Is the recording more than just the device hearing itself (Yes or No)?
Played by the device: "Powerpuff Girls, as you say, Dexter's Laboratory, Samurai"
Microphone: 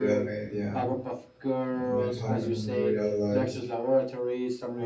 Yes